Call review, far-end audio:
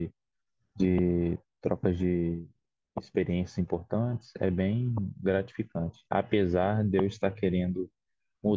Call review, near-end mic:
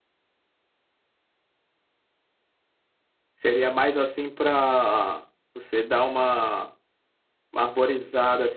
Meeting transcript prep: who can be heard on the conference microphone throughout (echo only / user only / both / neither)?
user only